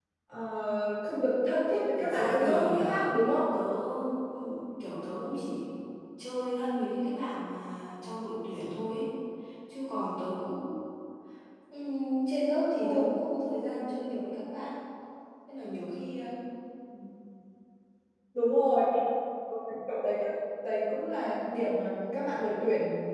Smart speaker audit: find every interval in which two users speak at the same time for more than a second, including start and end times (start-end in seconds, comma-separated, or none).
2.0-3.5